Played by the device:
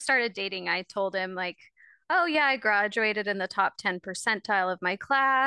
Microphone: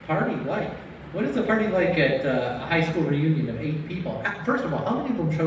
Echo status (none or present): none